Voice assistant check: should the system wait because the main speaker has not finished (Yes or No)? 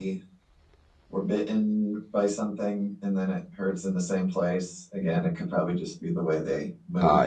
No